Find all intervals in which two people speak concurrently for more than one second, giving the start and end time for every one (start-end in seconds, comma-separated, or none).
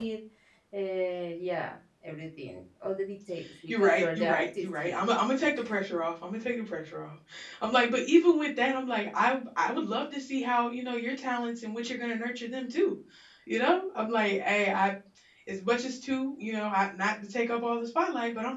3.7-5.0